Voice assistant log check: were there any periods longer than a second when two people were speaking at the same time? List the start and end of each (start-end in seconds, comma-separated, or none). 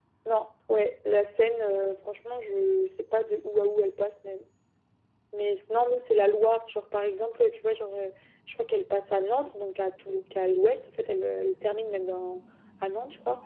none